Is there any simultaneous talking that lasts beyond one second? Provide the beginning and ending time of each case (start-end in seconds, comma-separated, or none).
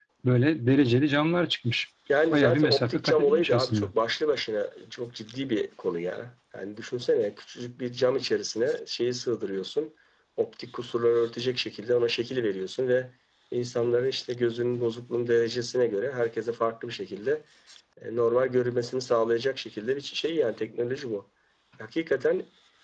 2.3-3.9